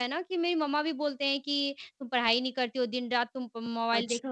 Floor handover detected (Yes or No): No